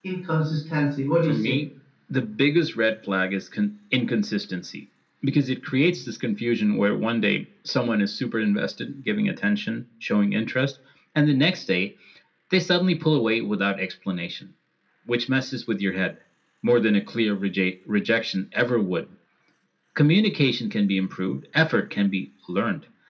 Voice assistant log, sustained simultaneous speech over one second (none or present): none